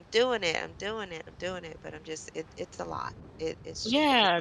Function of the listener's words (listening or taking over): taking over